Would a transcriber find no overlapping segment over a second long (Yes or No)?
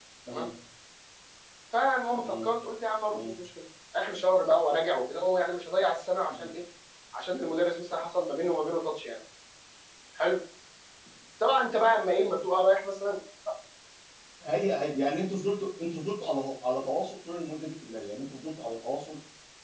Yes